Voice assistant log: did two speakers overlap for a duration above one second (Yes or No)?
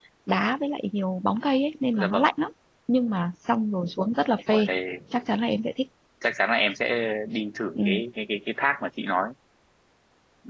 No